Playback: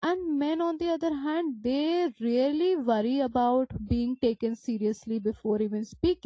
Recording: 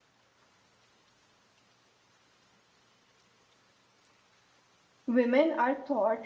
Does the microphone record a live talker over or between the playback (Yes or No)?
Yes